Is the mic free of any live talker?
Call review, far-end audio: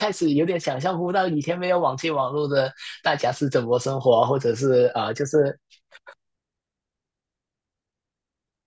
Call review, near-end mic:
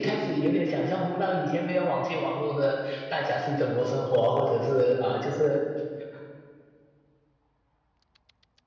Yes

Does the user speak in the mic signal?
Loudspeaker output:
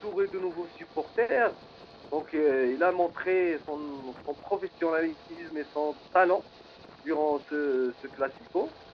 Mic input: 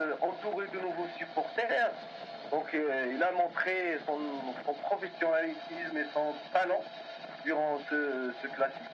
No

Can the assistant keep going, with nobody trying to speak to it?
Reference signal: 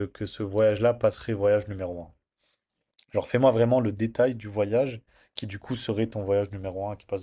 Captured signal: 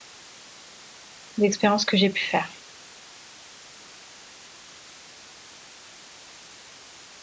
No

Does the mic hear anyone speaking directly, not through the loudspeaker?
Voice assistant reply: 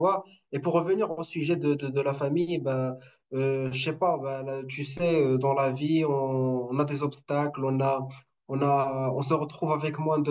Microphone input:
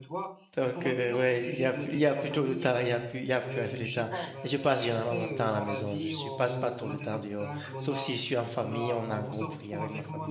Yes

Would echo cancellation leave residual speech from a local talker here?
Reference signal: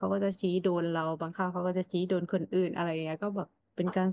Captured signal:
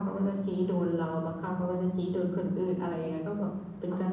No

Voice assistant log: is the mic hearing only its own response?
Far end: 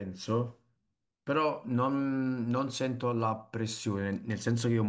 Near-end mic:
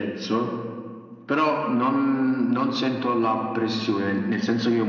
Yes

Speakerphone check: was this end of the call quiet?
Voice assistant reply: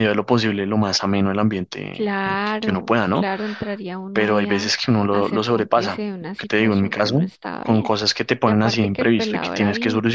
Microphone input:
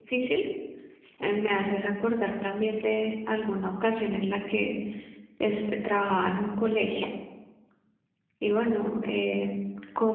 No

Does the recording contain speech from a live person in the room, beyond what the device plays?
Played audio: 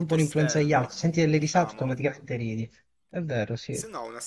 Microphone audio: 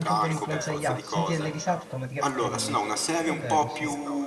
Yes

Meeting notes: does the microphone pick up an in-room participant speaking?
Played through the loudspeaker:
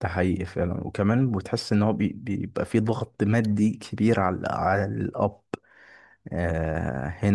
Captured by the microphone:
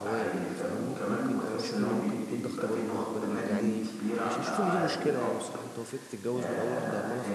Yes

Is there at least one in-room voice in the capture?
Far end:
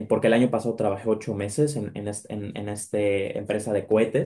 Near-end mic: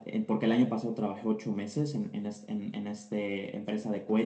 No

